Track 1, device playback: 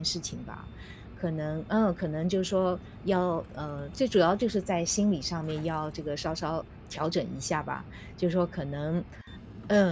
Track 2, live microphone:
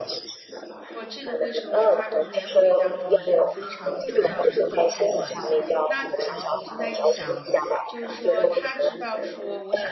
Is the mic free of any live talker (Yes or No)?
No